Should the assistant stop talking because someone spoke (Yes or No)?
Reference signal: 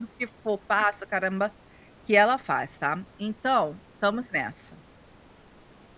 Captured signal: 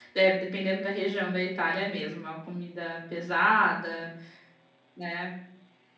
Yes